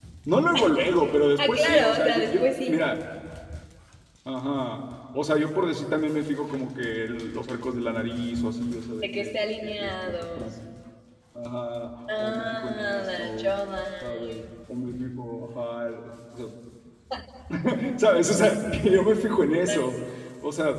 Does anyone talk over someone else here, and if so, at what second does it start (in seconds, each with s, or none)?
1.4 s